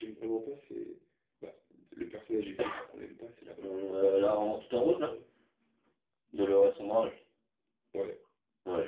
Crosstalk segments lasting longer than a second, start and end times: 3.6-5.1

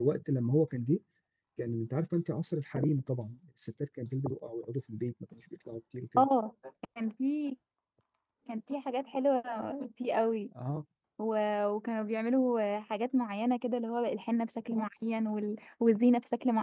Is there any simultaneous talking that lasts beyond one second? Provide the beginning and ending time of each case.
none

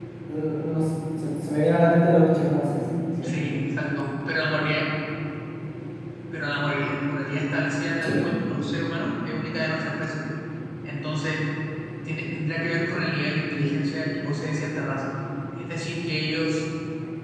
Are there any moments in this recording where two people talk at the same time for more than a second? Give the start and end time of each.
none

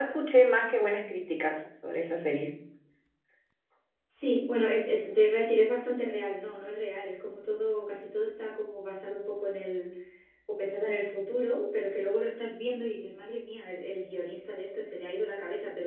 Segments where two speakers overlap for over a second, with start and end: none

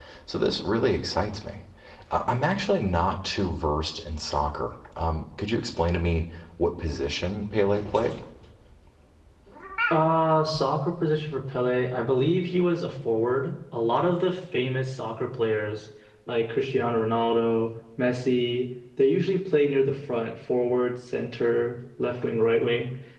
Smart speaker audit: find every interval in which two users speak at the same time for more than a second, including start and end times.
none

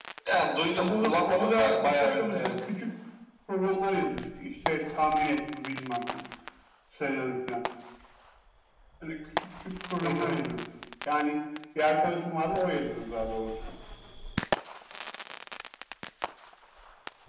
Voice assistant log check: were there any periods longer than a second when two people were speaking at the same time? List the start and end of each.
0.8-2.6

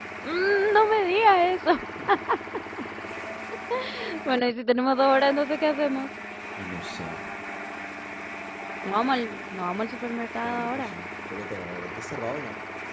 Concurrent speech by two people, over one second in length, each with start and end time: none

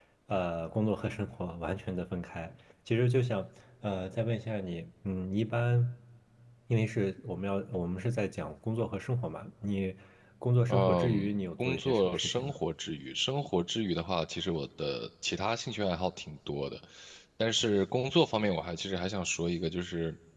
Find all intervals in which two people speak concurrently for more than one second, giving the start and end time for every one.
10.7-12.5

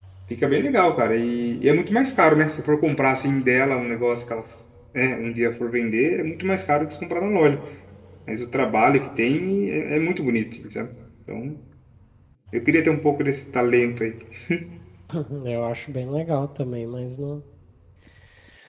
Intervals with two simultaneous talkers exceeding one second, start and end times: none

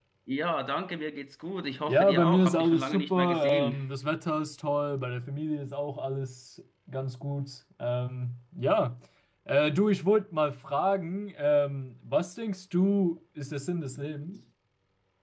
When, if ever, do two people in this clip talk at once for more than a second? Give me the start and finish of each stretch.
1.9-3.8

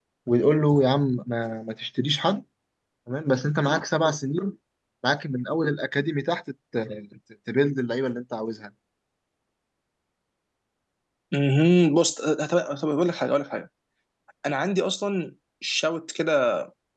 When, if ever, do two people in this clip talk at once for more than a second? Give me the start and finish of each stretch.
none

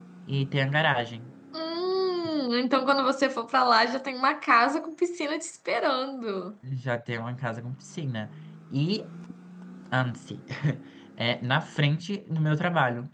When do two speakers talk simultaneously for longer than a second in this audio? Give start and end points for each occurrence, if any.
none

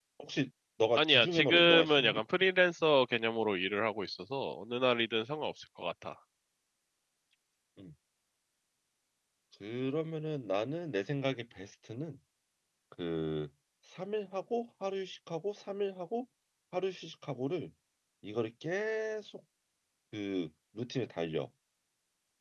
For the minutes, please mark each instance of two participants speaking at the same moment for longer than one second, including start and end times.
1.0-2.2

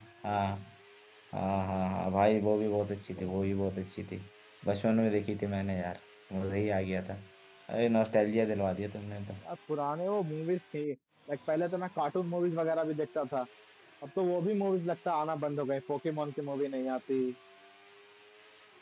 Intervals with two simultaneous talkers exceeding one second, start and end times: none

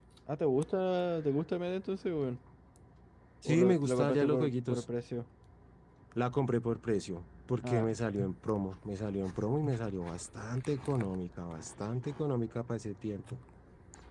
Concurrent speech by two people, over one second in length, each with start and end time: 3.5-4.8

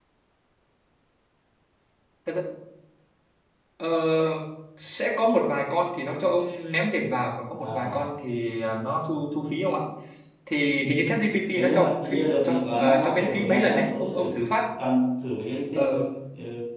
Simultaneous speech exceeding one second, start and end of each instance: 11.5-14.4

